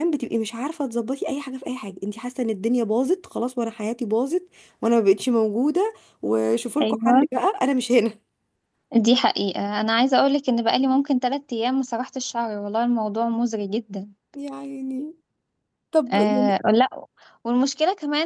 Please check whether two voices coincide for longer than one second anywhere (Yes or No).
No